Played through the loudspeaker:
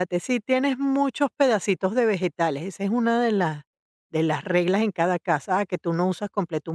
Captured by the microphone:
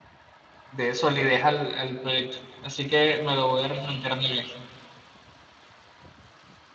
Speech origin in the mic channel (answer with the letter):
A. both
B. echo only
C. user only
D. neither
C